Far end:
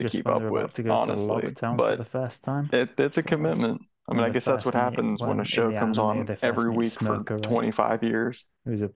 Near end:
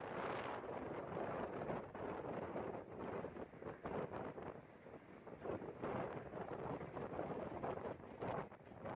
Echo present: No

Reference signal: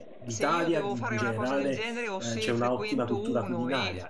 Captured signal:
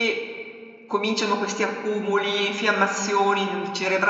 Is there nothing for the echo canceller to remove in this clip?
Yes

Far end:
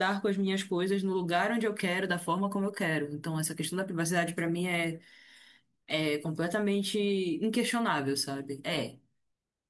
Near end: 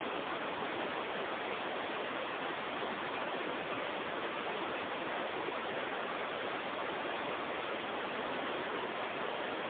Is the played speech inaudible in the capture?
Yes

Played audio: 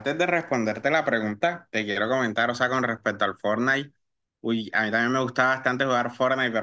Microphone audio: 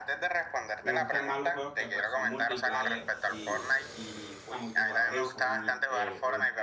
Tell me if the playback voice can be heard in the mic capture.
Yes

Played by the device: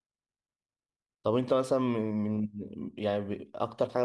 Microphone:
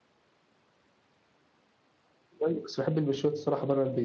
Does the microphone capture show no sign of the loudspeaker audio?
Yes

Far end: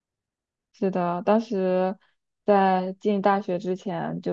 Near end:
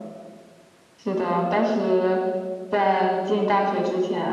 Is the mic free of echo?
No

